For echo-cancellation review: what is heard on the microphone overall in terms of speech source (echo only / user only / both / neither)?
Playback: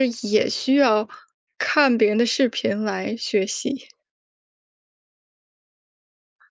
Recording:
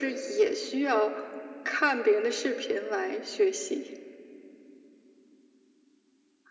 echo only